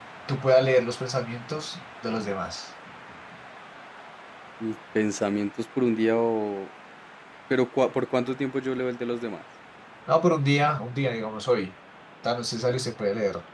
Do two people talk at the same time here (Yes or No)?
No